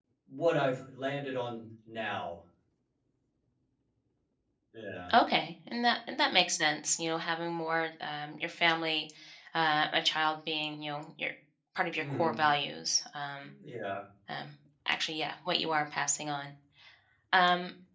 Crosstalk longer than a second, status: none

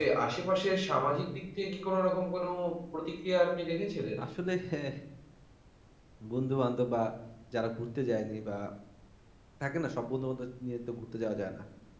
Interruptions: none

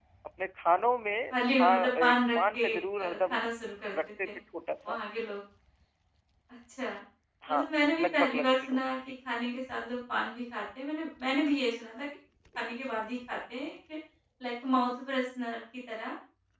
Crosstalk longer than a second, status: present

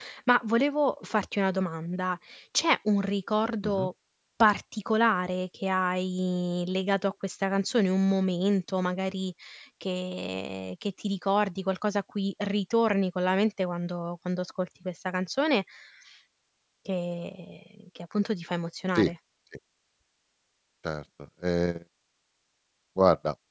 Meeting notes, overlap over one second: none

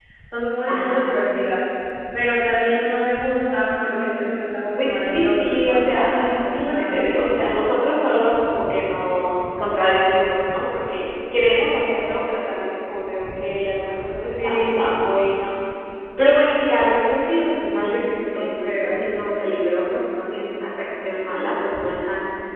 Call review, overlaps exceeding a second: present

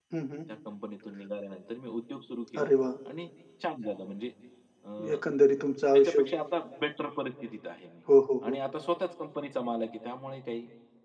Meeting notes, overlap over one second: none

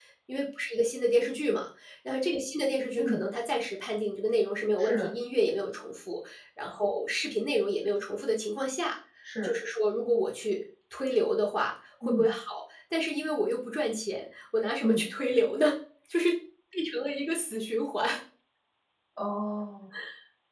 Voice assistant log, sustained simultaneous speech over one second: none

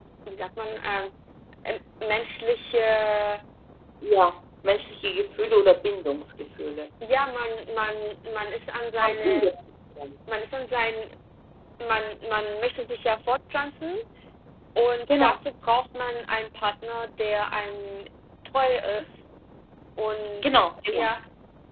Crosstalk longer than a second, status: none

